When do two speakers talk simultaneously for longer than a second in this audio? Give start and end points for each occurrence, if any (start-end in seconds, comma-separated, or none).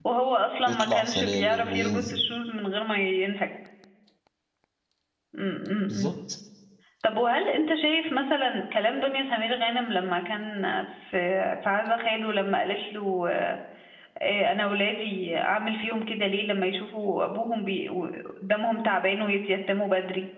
0.6-2.2